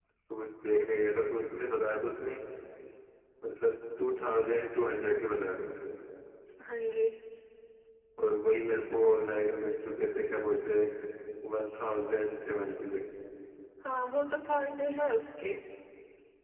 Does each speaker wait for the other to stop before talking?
Yes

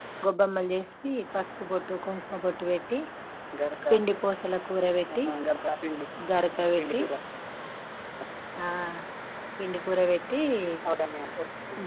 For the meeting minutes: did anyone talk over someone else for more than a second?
No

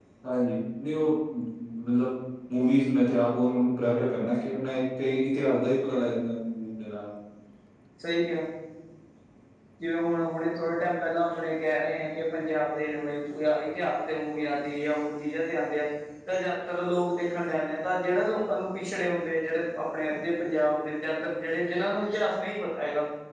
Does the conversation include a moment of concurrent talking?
No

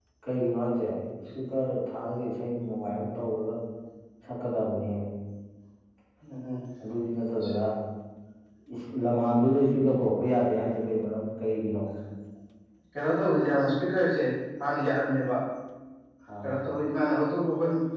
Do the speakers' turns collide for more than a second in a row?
No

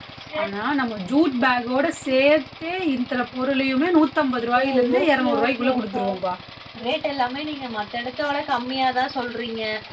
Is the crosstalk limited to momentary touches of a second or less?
No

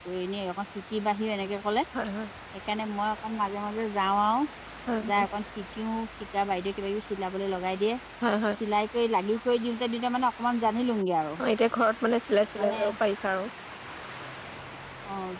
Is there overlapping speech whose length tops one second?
No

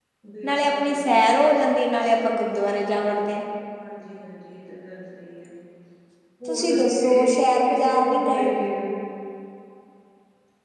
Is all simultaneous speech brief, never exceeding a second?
No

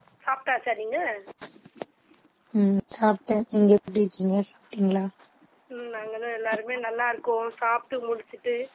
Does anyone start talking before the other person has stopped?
No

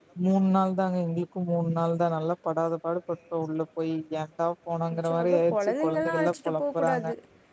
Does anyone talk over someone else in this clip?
Yes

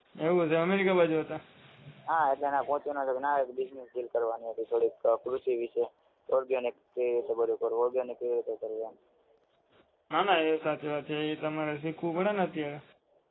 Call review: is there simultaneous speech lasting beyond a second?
No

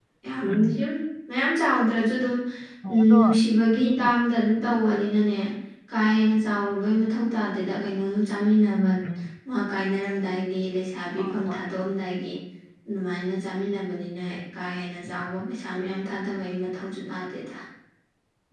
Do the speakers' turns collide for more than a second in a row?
No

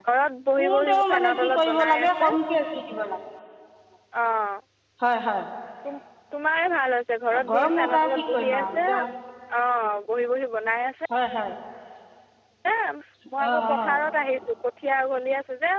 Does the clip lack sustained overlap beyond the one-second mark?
No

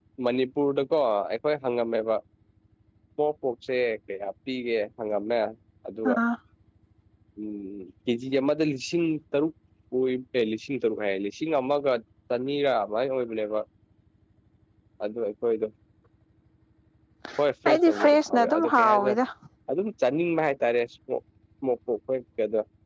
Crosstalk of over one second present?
Yes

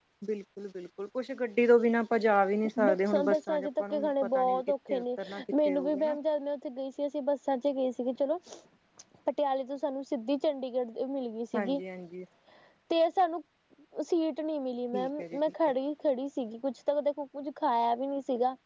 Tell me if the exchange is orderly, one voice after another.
No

